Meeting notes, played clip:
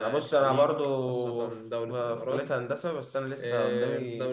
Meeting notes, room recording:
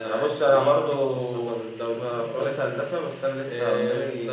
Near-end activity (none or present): none